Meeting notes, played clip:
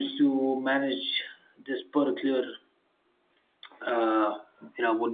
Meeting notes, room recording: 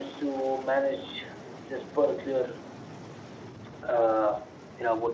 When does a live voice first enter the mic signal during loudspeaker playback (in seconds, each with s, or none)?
none